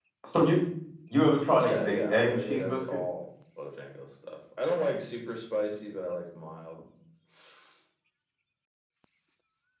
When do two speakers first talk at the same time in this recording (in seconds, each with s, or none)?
1.6 s